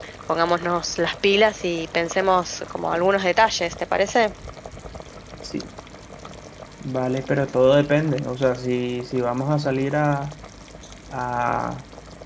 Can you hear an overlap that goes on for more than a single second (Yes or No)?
No